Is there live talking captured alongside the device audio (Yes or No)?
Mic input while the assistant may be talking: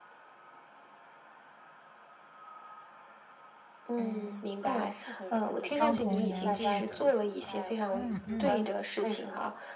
Yes